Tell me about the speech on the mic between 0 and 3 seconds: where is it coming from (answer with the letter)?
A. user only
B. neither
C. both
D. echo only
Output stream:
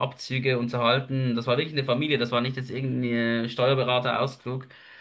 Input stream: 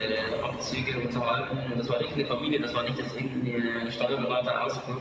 D